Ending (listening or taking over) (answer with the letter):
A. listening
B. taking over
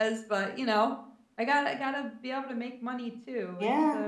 B